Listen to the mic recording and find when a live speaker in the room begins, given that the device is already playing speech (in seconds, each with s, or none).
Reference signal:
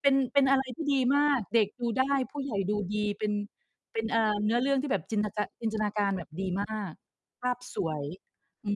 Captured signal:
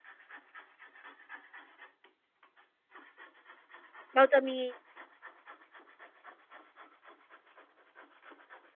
4.1 s